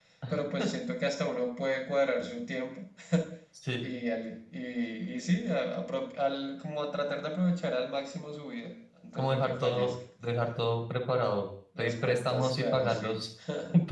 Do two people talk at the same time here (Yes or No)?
Yes